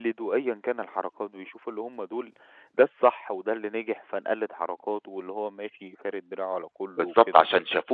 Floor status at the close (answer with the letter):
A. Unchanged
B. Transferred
B